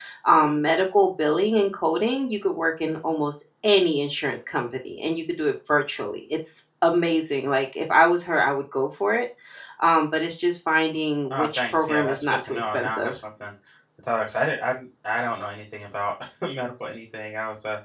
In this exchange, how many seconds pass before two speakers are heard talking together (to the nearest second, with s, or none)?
11 s